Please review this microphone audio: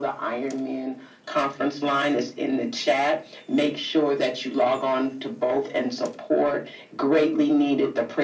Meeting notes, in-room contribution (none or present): none